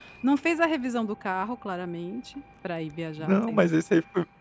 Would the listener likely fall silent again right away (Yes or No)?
No